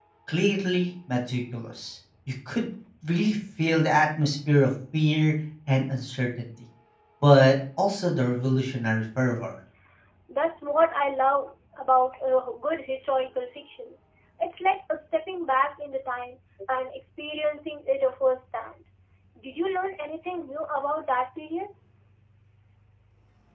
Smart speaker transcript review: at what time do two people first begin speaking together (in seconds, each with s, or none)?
none